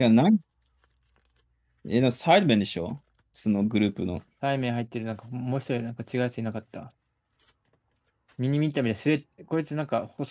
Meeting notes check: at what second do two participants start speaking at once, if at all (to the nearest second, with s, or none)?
none